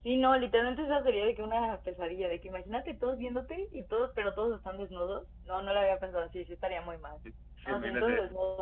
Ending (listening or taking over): taking over